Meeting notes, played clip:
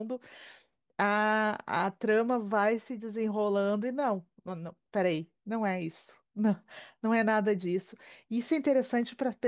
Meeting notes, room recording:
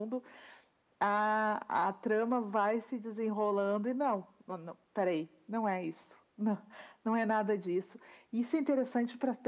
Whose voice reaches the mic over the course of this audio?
echo only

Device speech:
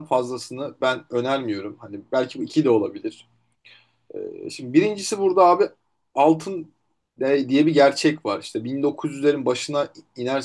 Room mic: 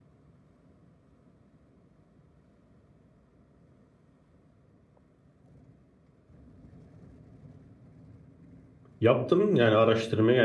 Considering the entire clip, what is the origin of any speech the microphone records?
user only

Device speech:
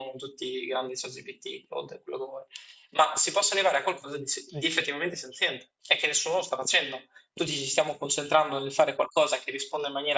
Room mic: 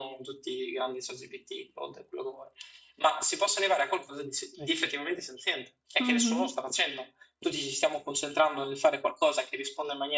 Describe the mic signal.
both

